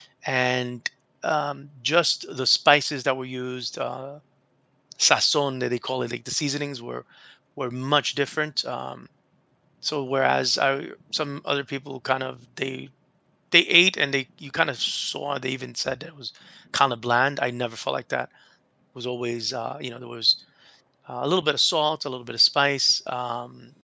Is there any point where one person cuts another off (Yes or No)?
No